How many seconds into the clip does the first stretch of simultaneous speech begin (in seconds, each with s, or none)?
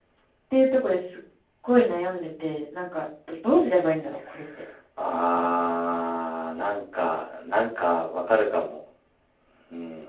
none